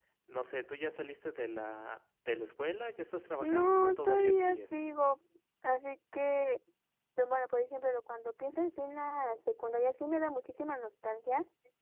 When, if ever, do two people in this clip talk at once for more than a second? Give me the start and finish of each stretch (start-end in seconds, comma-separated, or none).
3.4-4.8